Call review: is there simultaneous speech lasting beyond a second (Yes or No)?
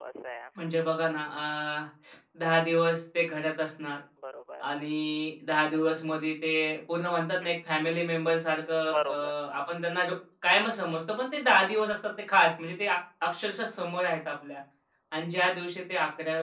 No